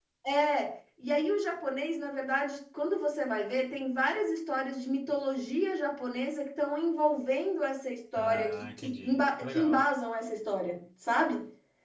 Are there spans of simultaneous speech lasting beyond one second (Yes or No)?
Yes